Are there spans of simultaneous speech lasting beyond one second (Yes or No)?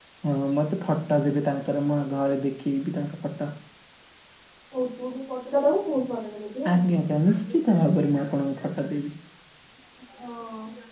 No